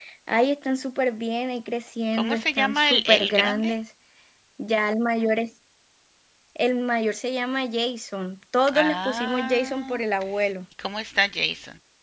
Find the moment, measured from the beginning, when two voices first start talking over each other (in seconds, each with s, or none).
2.1 s